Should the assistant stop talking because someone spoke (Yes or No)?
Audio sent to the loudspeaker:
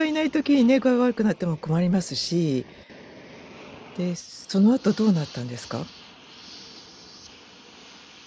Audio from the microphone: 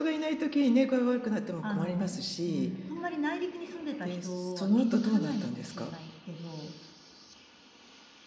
Yes